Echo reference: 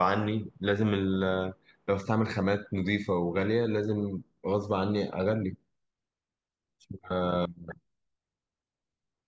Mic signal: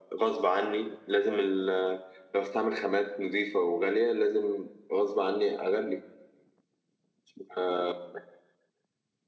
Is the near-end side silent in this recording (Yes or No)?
Yes